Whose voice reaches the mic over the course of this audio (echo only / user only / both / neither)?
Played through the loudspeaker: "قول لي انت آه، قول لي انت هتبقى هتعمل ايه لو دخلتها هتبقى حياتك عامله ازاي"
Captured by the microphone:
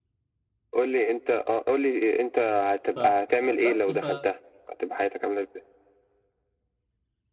both